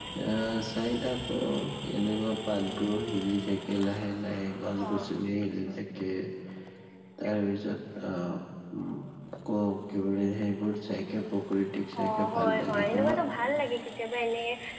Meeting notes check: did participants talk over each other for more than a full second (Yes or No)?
Yes